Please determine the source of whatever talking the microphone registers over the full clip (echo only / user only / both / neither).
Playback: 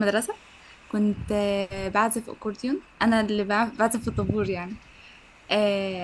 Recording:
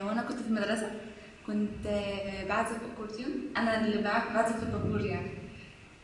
echo only